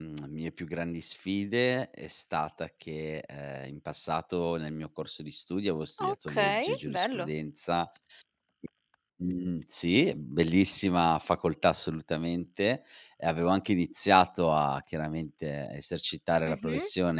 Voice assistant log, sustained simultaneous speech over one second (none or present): present